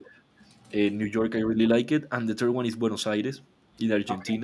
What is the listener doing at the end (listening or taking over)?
listening